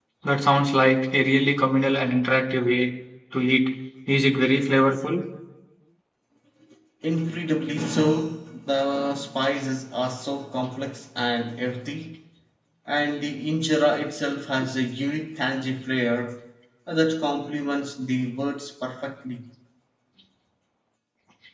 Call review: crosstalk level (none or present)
none